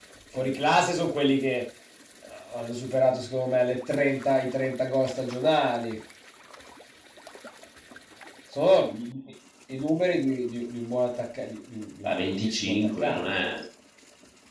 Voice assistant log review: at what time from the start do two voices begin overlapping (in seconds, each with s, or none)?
12.0 s